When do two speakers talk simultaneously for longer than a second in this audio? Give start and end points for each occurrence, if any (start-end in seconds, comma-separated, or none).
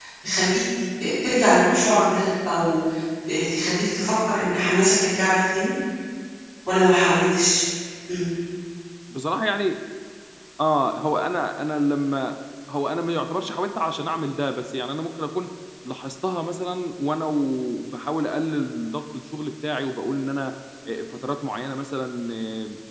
none